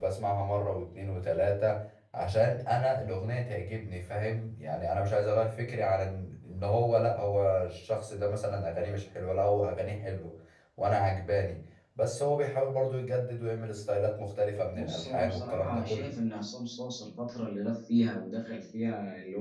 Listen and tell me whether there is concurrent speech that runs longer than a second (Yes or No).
Yes